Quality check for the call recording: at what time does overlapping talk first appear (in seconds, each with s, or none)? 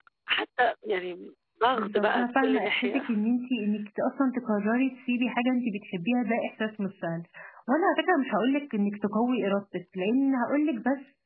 1.7 s